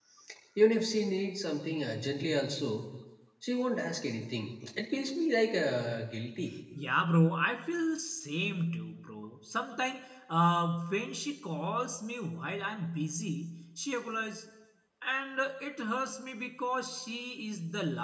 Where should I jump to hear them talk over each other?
none

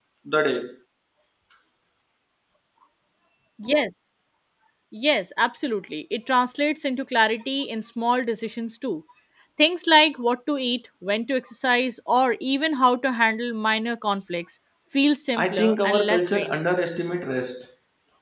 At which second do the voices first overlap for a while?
15 s

